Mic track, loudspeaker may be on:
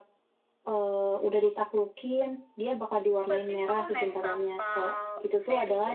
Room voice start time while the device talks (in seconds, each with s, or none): 3.1 s